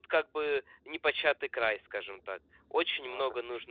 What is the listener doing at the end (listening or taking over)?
listening